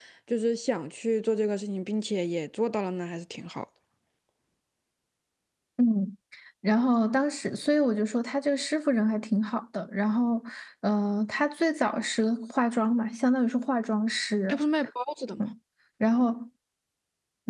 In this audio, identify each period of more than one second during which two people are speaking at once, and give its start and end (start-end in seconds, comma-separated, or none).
none